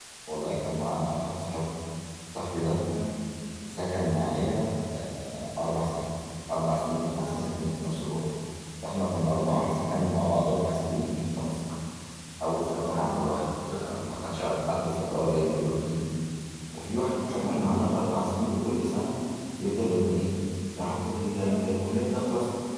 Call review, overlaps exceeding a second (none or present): none